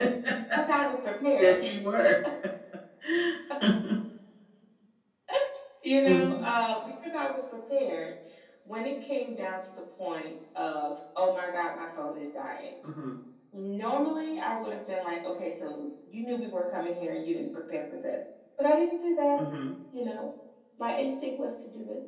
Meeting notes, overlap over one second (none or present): none